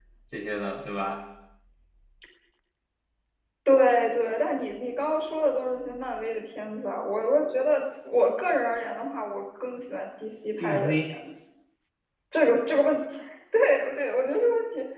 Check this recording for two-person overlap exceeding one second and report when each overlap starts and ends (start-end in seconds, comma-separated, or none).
none